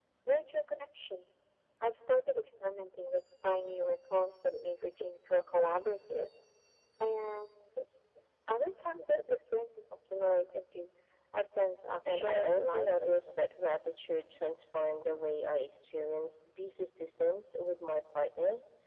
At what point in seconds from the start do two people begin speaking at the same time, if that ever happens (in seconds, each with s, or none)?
12.1 s